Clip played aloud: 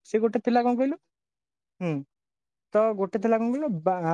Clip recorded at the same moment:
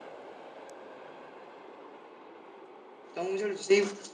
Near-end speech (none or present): present